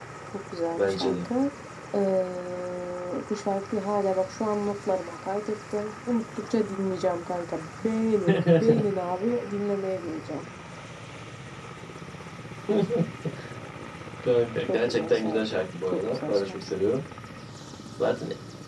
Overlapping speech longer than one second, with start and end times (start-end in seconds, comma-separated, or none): 14.7-16.6